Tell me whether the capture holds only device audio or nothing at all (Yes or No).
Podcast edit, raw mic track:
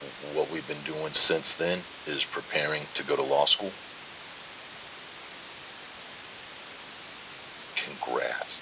Yes